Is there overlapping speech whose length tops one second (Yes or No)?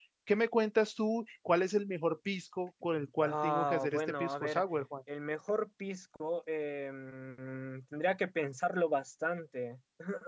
Yes